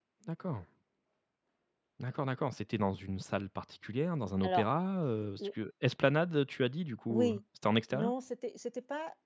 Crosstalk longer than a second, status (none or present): none